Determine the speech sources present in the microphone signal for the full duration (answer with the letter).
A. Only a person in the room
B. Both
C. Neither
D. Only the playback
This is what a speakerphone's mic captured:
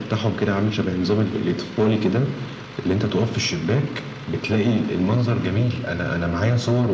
D